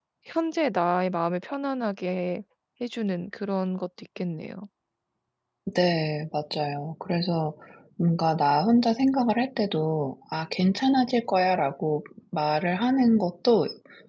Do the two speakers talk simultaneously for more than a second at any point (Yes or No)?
No